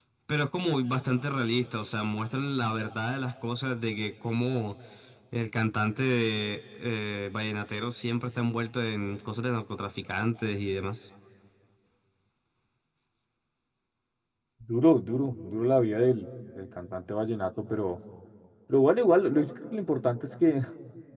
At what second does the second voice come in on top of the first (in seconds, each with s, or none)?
none